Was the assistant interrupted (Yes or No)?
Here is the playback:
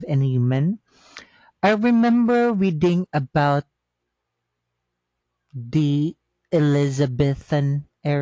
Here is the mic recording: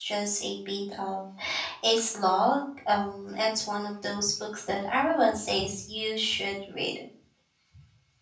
Yes